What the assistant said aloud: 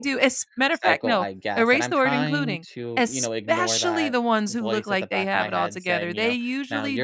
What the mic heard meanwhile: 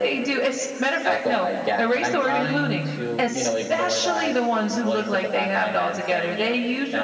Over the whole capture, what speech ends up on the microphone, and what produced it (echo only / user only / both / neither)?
echo only